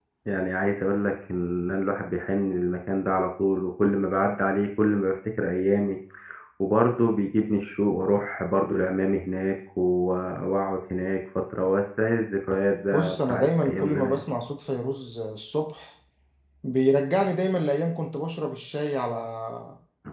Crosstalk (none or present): present